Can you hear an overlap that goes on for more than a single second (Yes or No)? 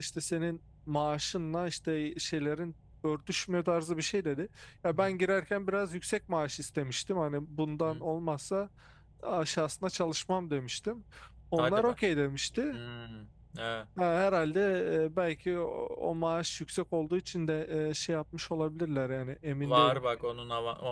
No